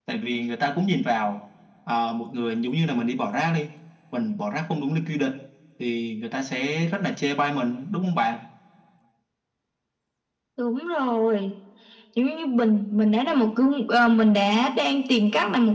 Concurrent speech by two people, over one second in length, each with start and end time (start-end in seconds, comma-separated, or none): none